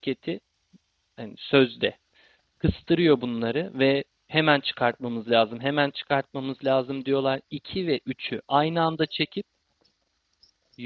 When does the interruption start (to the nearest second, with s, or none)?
none